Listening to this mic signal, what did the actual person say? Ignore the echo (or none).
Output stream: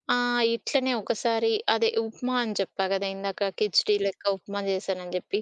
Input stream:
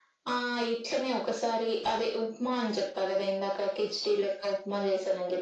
none